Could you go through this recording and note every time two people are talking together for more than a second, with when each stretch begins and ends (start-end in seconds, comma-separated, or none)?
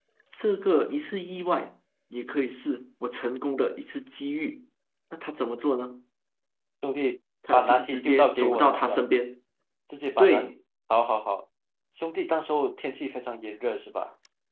7.5-9.0